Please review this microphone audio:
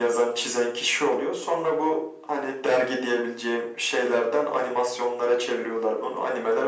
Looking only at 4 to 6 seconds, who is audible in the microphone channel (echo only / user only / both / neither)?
echo only